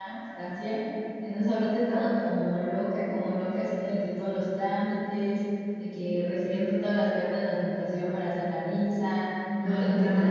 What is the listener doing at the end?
listening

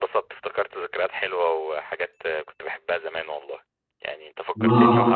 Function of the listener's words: listening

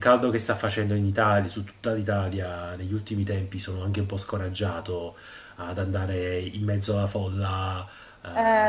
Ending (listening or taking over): listening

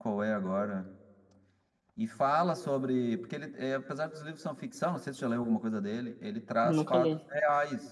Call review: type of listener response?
listening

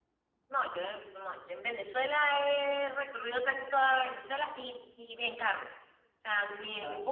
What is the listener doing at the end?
listening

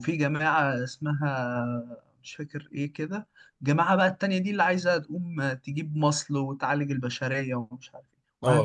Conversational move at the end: taking over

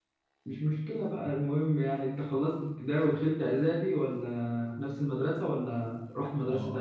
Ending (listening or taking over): taking over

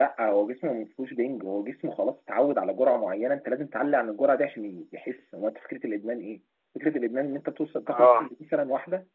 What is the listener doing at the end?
listening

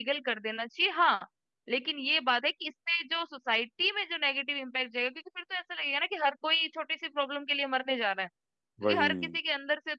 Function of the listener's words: listening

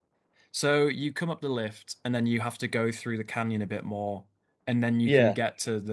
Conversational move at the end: listening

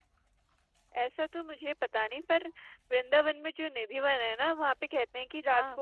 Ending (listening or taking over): listening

